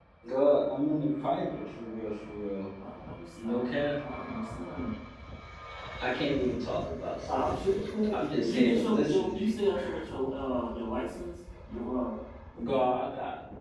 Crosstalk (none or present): present